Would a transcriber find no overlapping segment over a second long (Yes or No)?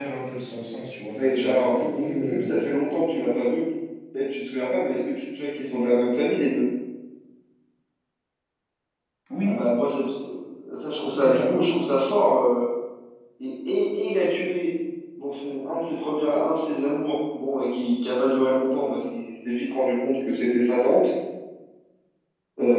No